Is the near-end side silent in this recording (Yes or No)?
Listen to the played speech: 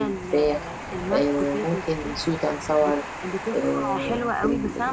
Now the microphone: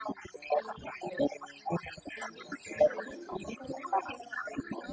No